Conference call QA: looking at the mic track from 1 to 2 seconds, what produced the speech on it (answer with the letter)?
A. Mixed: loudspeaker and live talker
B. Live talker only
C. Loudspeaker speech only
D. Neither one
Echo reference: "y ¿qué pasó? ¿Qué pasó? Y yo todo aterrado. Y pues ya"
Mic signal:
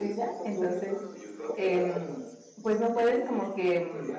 A